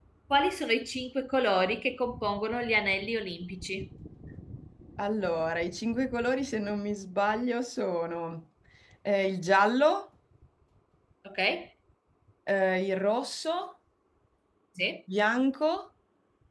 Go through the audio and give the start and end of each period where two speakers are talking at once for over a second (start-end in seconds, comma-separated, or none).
none